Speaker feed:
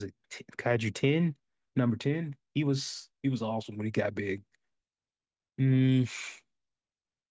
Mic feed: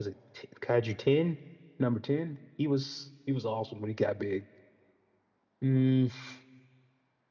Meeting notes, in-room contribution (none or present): none